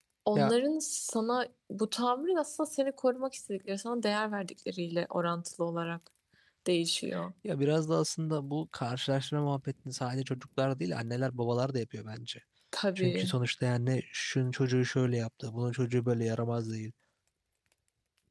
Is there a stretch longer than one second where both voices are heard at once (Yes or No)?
No